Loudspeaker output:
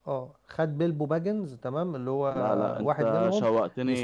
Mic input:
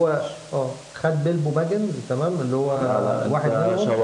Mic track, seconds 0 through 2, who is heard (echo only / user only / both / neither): echo only